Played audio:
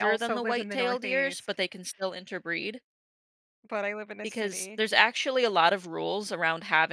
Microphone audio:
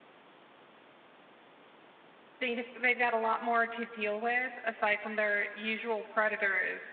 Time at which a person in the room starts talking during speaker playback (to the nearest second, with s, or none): 2 s